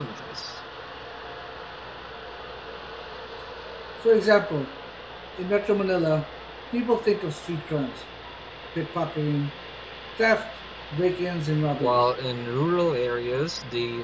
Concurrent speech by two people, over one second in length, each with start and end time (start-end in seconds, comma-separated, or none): none